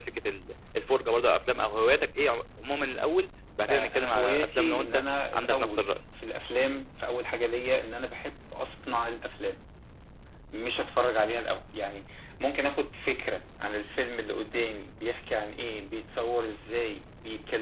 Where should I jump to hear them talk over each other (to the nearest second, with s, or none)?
4 s